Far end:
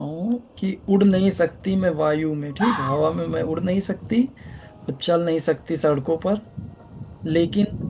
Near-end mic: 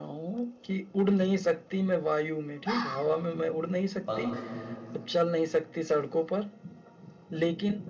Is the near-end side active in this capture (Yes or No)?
Yes